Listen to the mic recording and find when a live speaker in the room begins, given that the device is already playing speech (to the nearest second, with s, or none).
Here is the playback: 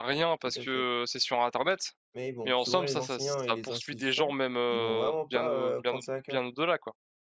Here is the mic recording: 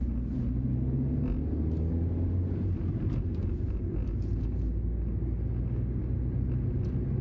none